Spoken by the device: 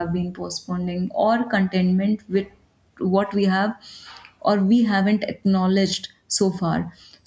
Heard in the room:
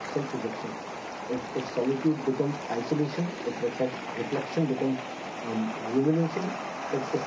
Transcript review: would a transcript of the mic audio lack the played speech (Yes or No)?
Yes